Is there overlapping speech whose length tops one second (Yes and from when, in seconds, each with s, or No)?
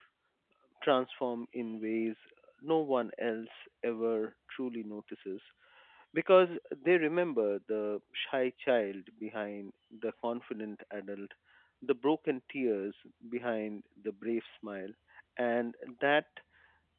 No